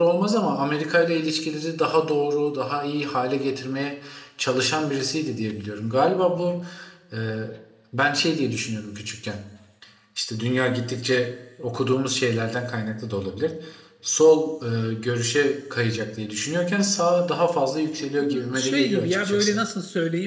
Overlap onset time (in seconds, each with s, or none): 18.2 s